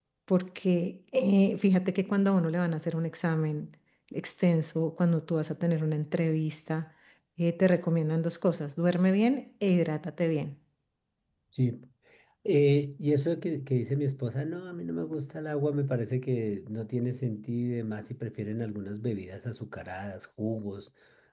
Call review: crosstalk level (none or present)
none